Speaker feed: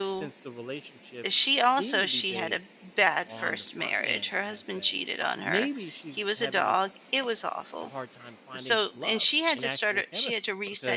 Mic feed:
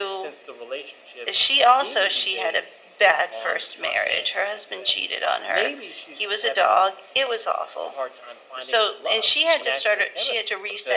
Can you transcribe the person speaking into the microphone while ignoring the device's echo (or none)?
none